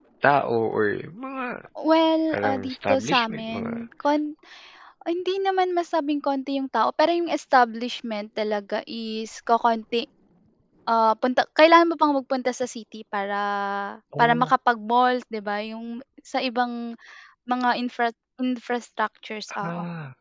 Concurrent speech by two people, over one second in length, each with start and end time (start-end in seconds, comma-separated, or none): 2.3-3.7